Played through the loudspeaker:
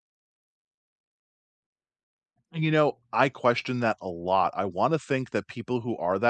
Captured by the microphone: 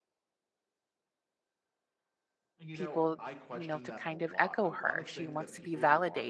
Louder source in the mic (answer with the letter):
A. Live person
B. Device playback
A